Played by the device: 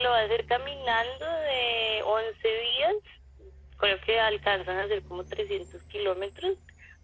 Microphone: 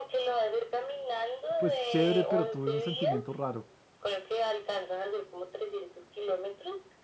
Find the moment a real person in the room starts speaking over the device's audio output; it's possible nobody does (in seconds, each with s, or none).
1.6 s